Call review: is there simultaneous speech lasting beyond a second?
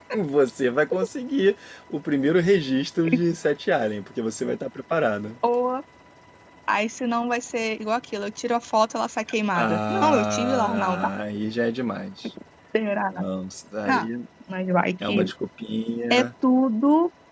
Yes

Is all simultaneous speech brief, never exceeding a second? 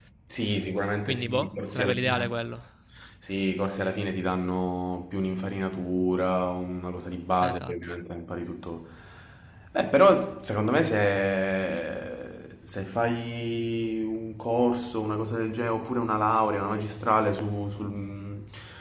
No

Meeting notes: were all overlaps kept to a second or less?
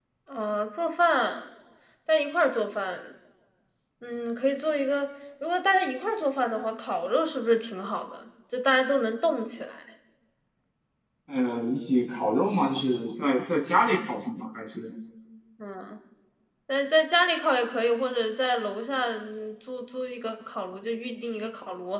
Yes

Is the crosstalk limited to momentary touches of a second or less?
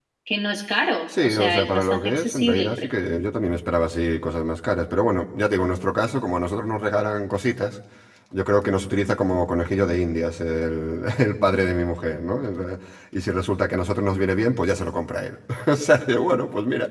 No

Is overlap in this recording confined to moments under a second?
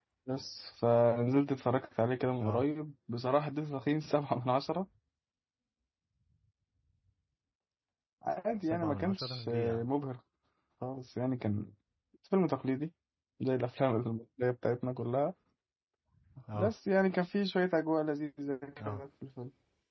No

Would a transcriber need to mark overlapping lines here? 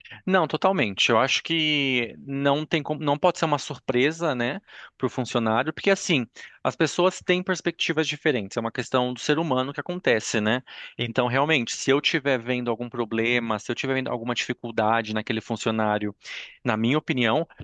No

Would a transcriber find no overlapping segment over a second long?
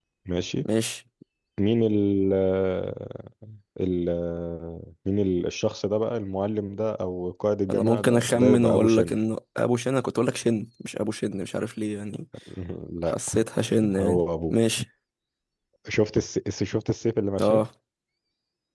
No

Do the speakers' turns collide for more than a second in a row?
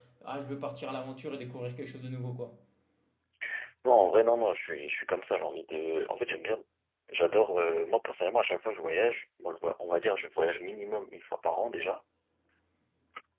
No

